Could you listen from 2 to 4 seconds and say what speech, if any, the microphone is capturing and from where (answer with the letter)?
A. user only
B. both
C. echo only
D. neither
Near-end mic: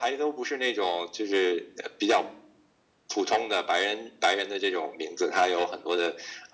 C